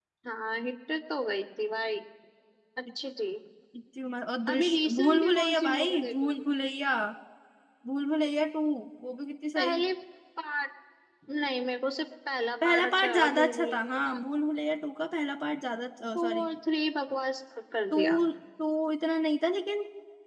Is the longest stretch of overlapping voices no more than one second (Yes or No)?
No